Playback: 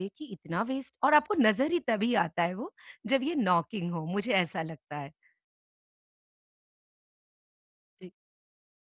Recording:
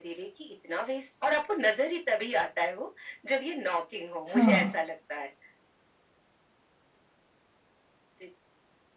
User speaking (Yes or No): Yes